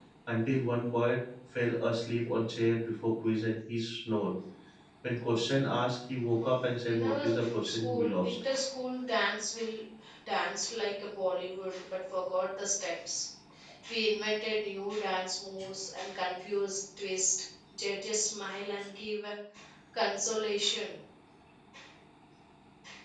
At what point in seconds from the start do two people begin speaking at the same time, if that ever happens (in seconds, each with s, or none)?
6.9 s